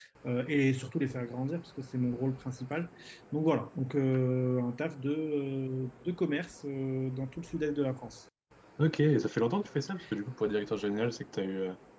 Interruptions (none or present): none